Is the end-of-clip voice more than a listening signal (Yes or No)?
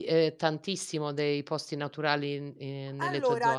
Yes